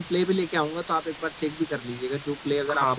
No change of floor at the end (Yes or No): No